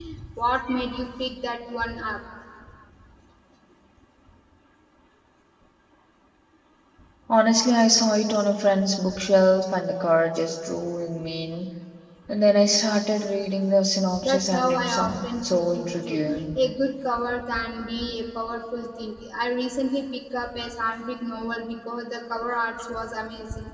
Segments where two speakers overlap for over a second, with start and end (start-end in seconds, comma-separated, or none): 14.2-16.5